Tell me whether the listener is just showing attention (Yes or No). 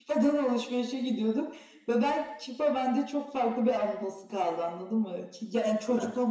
Yes